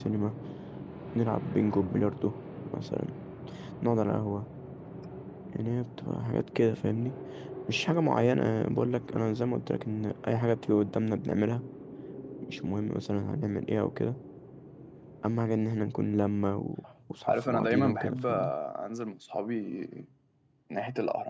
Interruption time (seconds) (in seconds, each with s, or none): 17.2 s